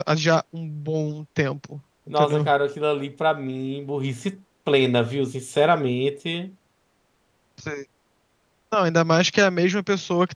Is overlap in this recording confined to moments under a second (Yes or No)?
Yes